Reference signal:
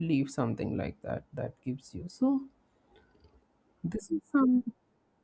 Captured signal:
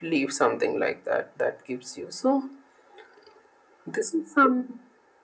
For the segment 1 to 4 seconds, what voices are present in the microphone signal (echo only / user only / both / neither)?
echo only